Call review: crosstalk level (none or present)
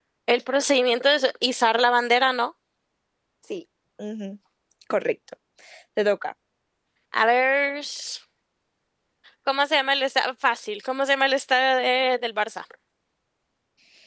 none